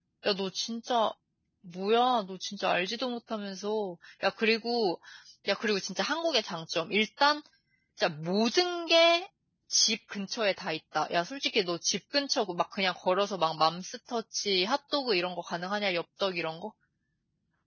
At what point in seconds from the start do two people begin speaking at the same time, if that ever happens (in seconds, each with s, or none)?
none